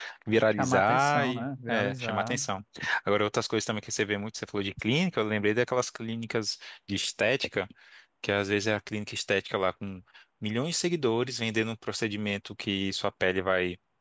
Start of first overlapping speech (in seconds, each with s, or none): 0.5 s